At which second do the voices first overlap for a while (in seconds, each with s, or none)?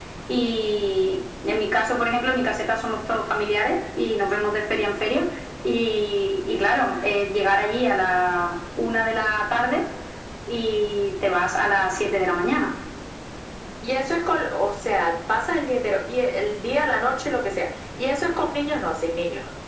none